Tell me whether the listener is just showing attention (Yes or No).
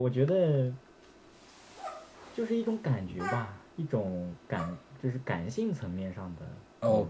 No